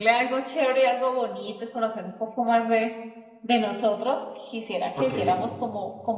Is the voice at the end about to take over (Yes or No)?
No